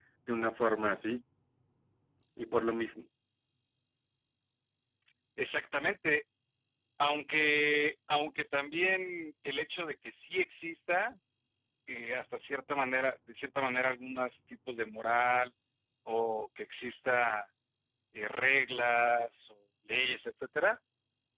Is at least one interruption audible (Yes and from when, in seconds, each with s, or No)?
No